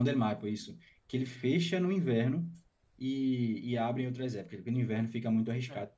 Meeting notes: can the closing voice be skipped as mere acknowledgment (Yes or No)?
No